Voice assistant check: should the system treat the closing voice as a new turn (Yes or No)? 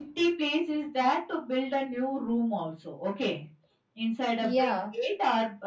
No